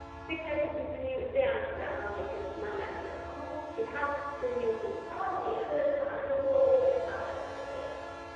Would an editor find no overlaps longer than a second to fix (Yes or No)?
Yes